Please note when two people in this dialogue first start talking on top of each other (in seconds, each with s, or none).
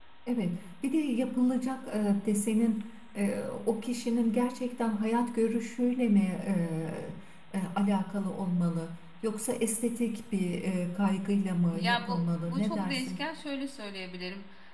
11.7 s